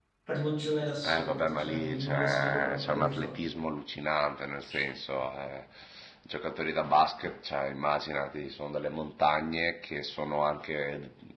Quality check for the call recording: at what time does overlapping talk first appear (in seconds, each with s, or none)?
1.0 s